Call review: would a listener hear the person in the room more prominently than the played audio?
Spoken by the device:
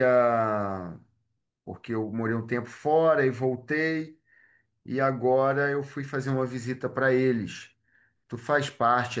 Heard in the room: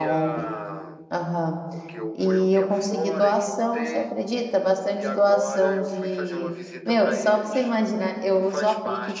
Yes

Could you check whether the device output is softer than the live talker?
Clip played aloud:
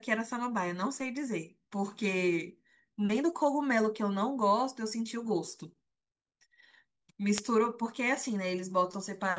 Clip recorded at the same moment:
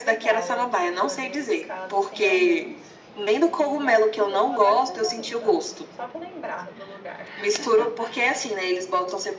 No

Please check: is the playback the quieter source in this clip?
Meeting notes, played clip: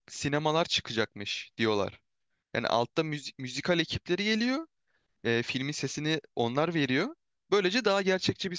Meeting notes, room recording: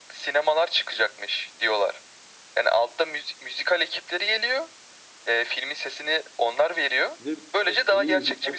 No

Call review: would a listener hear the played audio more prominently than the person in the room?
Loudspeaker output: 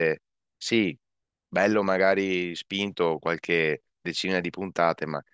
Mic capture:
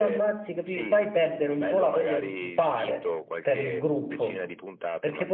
No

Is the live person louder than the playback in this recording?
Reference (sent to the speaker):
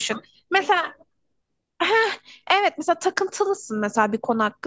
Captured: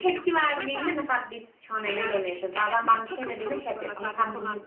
Yes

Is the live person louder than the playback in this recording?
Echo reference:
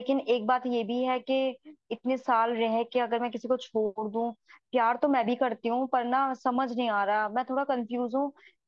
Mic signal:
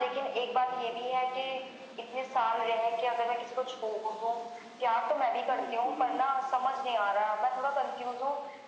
No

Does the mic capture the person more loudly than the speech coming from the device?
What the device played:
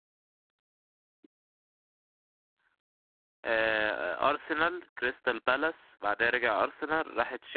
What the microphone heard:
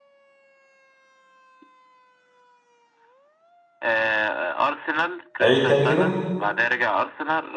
Yes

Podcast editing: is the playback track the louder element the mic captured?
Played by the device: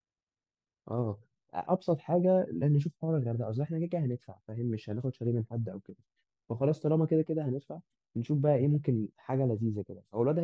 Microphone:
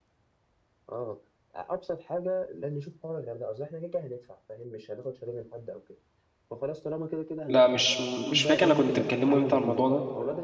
No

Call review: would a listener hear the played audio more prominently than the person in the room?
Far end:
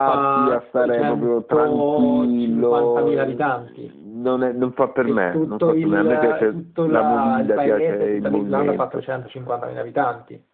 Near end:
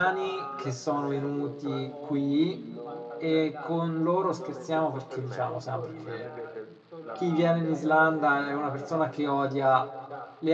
No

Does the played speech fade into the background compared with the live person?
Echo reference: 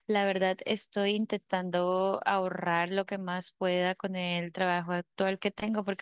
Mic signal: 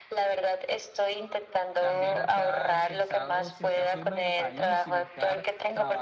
No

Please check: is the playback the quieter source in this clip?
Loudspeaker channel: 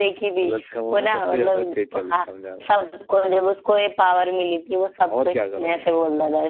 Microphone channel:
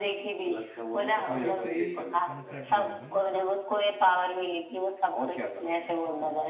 No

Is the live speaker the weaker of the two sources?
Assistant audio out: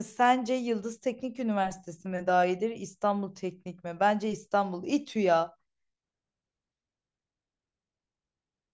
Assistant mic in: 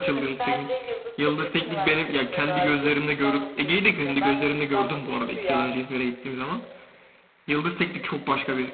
No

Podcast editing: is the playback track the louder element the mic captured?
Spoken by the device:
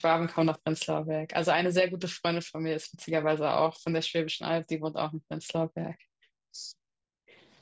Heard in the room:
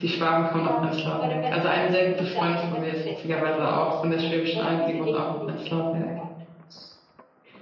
Yes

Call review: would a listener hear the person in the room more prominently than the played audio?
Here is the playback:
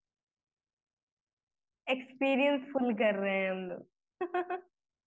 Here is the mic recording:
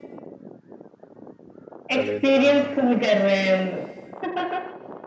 No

